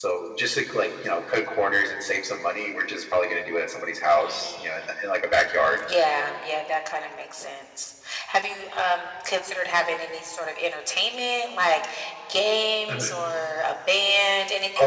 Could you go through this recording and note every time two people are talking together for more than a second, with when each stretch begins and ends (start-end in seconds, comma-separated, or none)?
none